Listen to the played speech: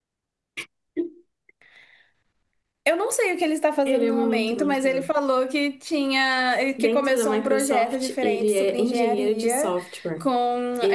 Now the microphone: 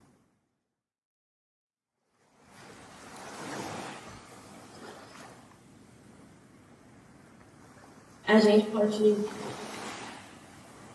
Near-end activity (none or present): present